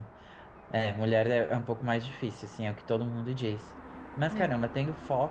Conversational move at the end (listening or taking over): listening